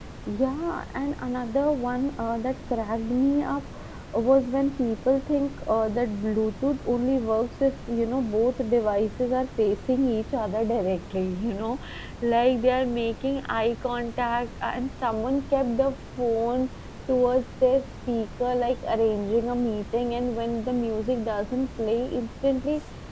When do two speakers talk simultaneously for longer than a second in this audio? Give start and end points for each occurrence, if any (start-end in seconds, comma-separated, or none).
none